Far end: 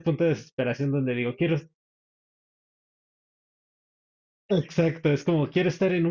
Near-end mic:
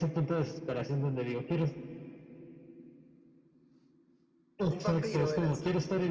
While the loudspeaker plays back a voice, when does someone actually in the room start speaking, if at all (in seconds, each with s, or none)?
4.7 s